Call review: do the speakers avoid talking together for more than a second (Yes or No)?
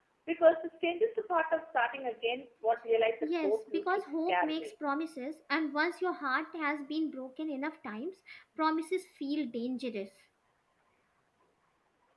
No